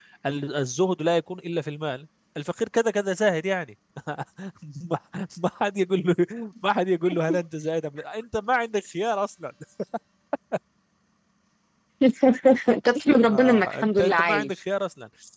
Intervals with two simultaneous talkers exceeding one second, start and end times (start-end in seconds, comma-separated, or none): 13.3-14.5